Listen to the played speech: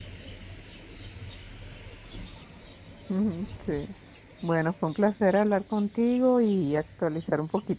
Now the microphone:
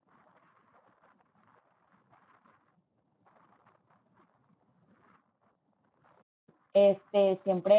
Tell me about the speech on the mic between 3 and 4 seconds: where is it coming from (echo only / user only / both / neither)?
neither